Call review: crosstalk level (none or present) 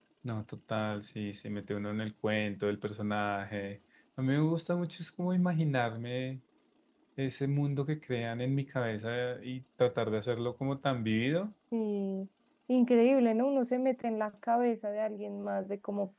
none